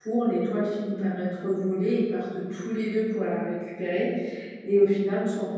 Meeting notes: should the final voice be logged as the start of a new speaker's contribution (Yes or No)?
No